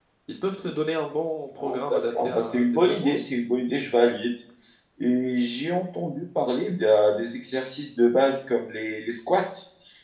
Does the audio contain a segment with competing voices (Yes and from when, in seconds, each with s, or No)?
Yes, from 1.6 s